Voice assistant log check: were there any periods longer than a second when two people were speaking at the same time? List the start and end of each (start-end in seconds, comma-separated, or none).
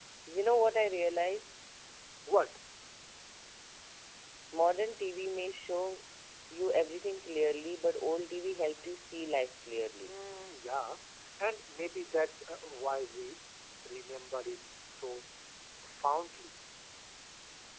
none